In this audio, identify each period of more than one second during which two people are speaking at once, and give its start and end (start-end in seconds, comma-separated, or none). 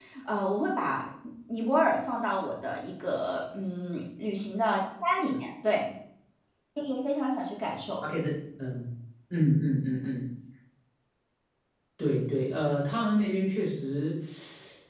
none